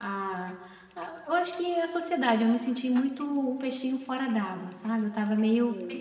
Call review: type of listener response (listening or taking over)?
taking over